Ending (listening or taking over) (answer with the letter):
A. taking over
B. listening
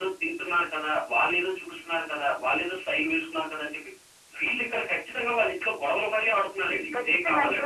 A